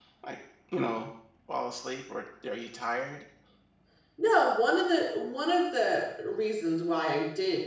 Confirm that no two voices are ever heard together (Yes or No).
Yes